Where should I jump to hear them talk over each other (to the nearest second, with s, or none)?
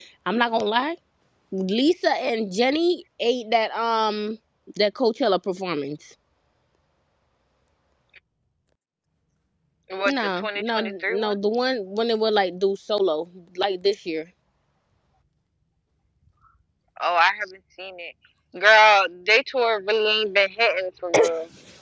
10 s